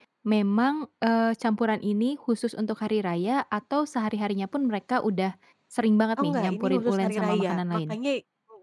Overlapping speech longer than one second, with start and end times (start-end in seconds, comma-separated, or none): 6.2-7.9